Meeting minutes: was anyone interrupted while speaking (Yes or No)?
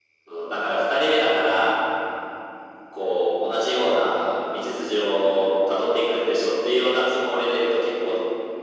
No